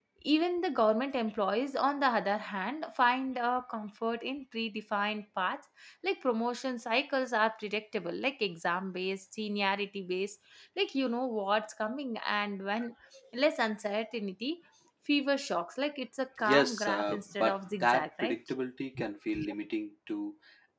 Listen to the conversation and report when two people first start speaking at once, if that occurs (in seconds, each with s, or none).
16.4 s